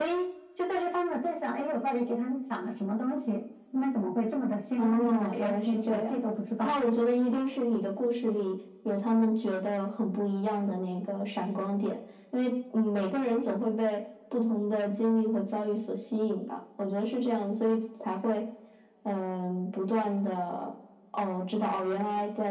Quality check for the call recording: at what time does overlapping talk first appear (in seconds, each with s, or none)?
4.8 s